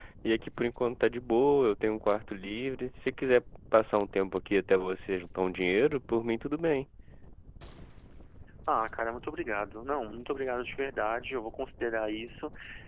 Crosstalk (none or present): none